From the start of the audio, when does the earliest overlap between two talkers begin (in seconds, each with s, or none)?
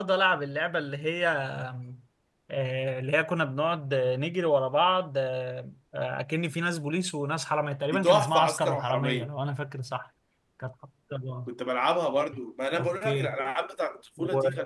7.9 s